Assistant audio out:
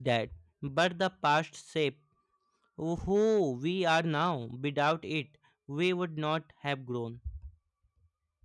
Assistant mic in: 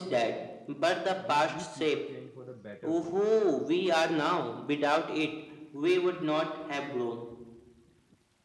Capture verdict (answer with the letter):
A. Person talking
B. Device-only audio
A